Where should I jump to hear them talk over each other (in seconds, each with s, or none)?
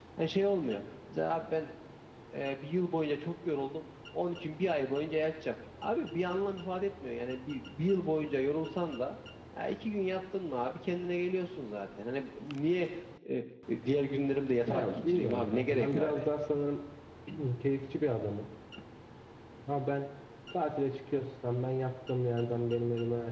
14.7 s